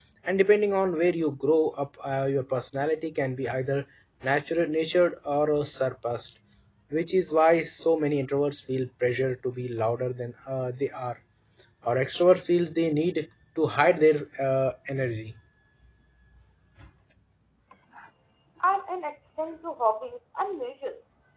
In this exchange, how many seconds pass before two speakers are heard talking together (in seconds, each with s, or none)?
none